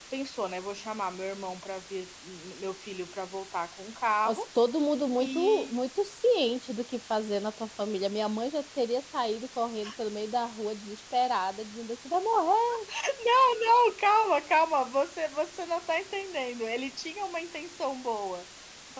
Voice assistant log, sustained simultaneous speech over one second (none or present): none